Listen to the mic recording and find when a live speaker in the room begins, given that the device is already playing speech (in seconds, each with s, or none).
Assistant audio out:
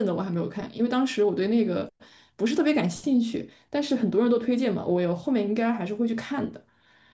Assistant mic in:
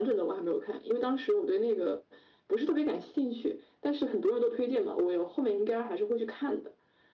none